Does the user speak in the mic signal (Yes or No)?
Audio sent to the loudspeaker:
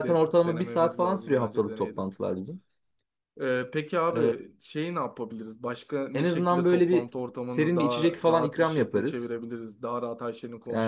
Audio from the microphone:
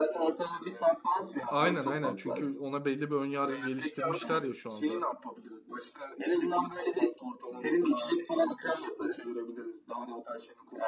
Yes